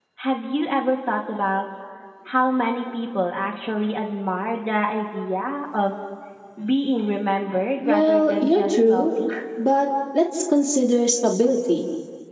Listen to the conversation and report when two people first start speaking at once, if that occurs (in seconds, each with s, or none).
7.8 s